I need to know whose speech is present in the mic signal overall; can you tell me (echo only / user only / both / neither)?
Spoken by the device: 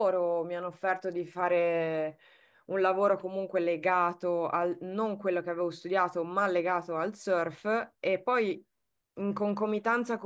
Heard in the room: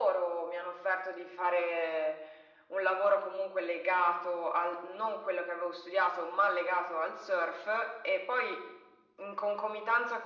echo only